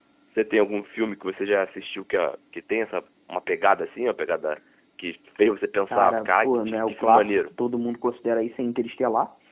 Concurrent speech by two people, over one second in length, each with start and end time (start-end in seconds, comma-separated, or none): 5.9-7.4